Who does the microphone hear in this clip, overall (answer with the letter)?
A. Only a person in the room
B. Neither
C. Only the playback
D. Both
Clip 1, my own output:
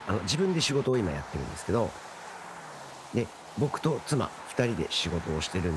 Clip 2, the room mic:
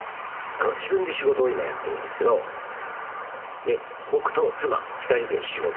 C